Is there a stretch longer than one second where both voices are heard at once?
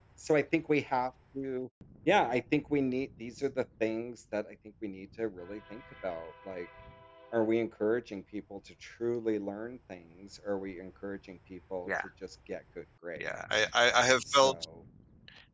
No

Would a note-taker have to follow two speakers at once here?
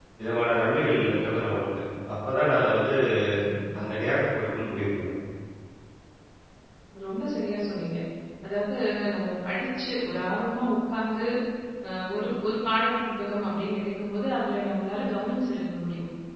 No

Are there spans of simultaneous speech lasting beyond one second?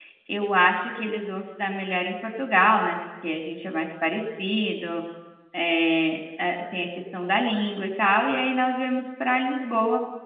No

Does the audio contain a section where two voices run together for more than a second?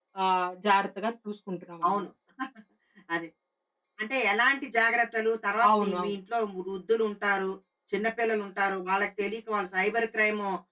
No

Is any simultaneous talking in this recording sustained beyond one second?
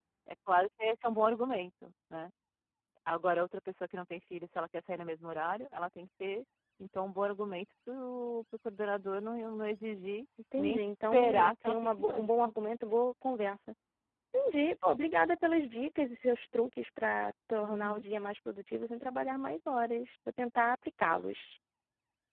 Yes, from 10.6 s

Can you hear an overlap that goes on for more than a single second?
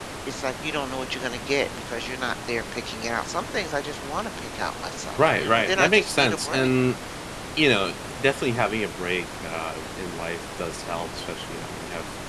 Yes, from 5.2 s

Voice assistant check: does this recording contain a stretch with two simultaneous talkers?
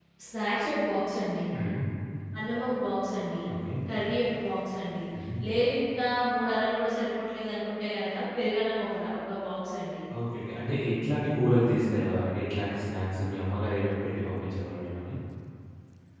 No

